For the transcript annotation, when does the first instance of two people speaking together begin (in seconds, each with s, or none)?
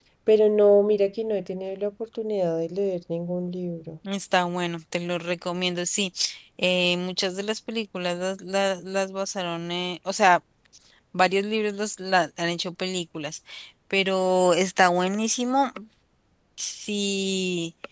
none